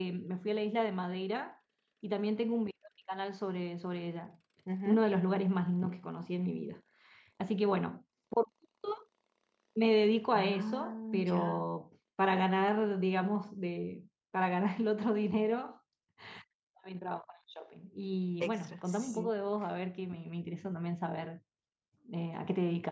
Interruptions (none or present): present